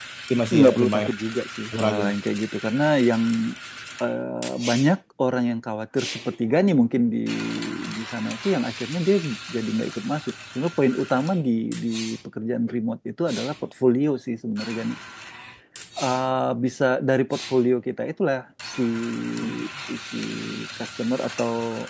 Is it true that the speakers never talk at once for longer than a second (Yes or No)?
Yes